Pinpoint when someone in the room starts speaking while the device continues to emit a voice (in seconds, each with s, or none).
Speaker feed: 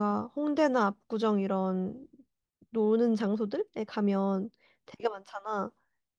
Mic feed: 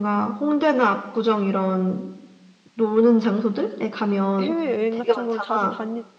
4.4 s